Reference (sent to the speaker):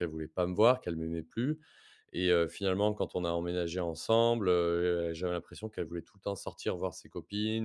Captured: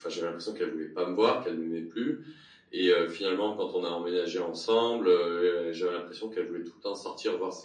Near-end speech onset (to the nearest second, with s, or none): none